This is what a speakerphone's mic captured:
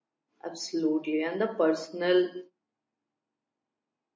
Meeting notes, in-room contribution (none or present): present